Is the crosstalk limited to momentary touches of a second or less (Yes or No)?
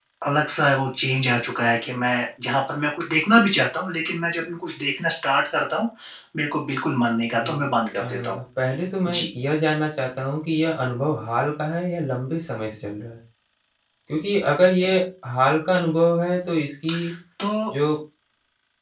Yes